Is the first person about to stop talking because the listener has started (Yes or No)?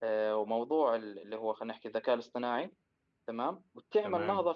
No